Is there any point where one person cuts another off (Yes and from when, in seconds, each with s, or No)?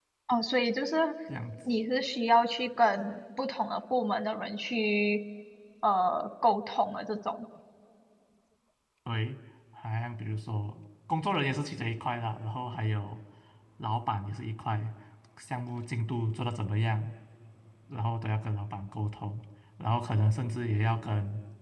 No